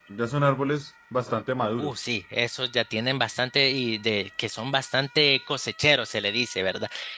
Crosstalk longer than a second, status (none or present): none